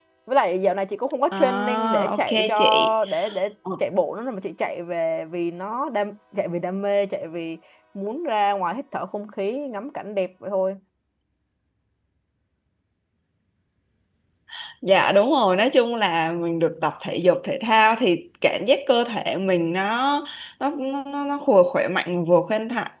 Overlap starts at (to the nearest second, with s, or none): 1 s